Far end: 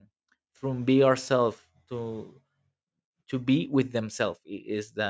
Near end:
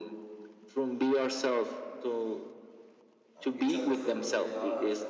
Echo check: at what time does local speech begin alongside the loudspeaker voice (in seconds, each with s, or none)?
3.4 s